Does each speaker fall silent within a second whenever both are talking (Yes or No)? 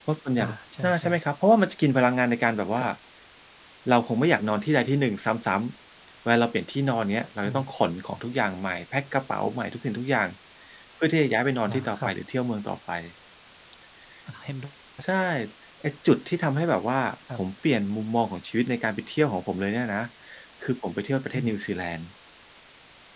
Yes